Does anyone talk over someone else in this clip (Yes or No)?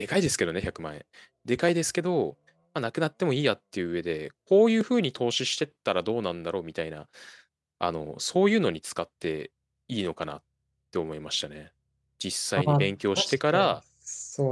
Yes